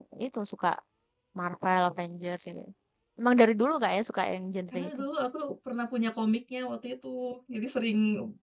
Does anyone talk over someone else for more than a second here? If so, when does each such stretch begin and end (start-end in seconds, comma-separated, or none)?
none